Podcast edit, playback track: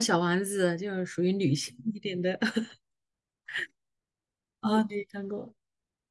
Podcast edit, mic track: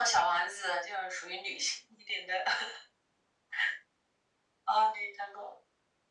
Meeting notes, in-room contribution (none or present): none